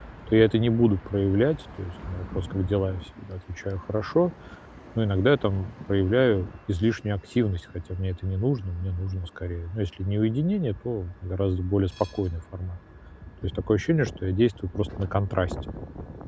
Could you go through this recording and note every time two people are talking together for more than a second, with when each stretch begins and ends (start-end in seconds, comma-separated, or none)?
none